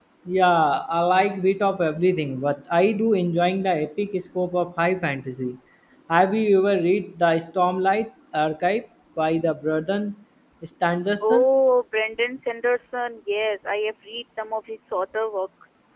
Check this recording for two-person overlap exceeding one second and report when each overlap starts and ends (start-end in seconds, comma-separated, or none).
none